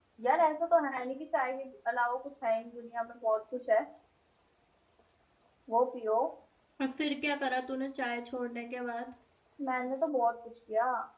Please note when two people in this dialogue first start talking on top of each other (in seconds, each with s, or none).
none